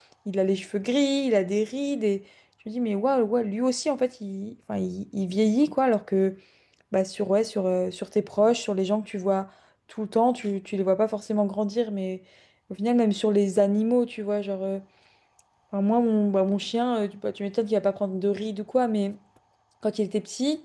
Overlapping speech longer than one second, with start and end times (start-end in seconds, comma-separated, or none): none